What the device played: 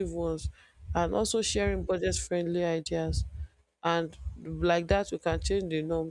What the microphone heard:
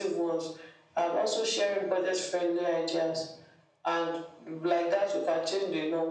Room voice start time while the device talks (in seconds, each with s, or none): none